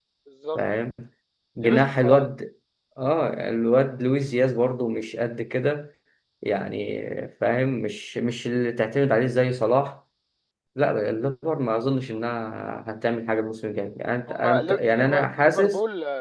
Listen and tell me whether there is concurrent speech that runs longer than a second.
Yes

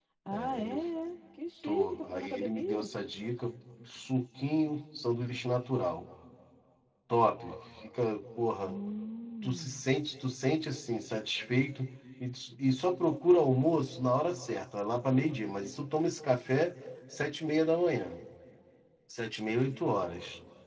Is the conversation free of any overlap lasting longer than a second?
No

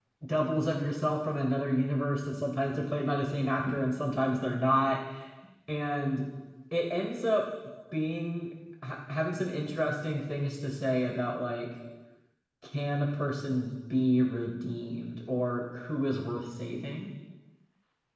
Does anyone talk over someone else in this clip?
No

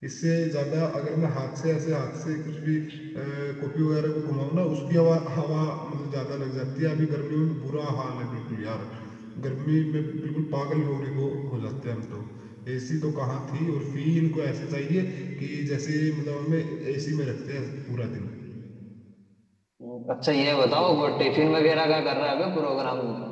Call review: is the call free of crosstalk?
Yes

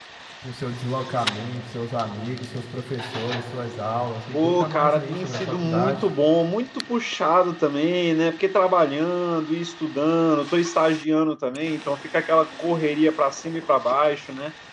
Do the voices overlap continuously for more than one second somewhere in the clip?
Yes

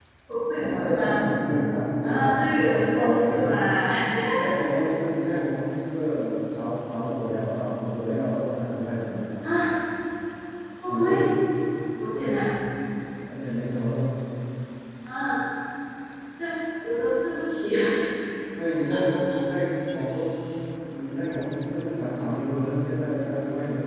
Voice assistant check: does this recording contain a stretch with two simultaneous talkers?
Yes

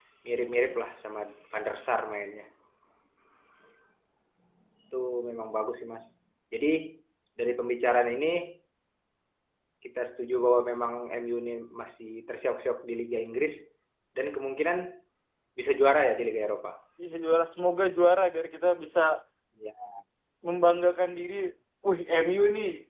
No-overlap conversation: Yes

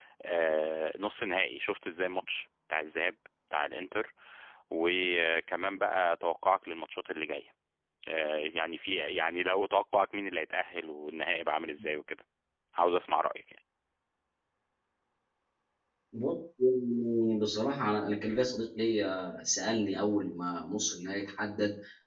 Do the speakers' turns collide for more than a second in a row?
No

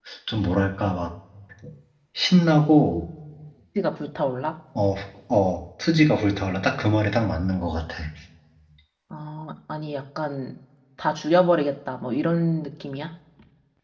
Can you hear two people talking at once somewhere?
No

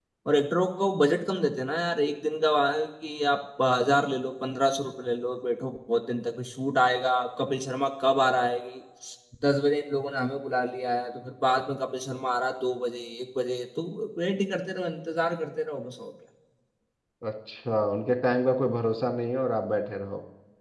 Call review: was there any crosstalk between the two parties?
No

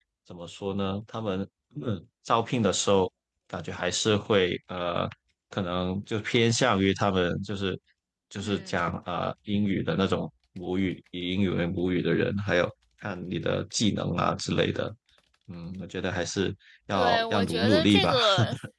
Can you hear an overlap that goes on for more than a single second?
Yes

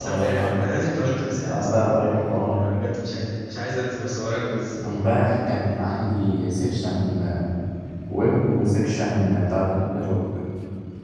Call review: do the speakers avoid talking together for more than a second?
Yes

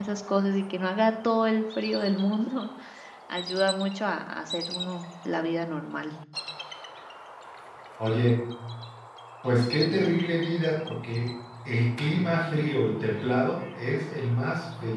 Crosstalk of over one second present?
No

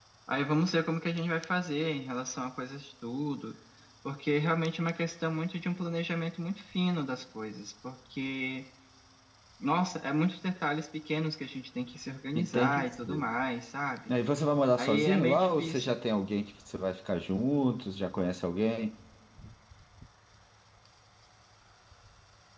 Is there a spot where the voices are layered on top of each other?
Yes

